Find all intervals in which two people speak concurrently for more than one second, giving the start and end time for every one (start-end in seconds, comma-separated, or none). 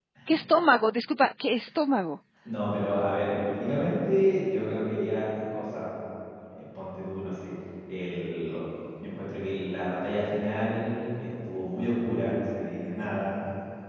none